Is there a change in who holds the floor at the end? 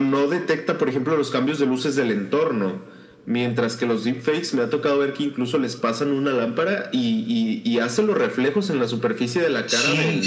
Yes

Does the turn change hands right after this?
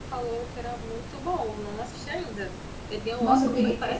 Yes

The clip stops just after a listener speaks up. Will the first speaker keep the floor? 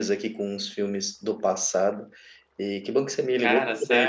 Yes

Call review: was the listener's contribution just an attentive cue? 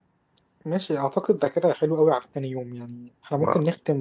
Yes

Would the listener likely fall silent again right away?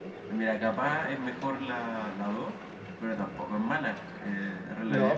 No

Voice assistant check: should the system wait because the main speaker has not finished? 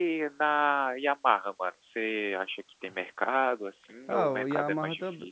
No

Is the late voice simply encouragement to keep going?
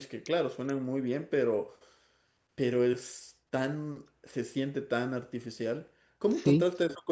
Yes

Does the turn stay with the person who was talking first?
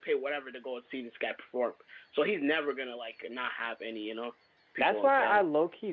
No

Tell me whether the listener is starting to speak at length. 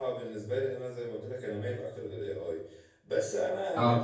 No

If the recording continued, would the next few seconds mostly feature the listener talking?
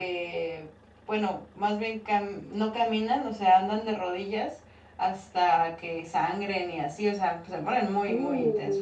No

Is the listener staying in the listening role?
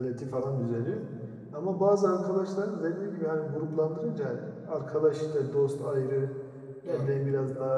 Yes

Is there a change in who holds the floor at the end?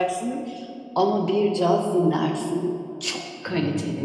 Yes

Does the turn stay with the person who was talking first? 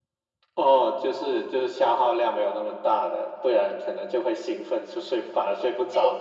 No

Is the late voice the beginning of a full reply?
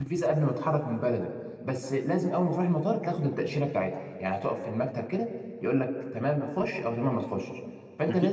No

